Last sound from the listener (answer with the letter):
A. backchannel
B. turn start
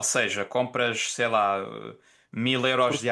A